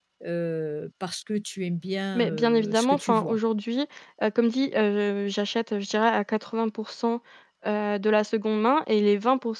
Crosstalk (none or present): present